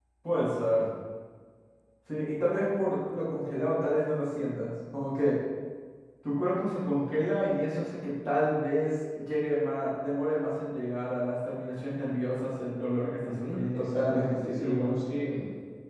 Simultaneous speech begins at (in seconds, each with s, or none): 13.2 s